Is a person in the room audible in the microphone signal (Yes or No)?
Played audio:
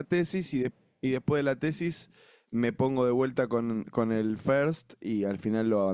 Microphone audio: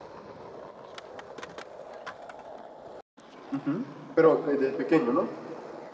Yes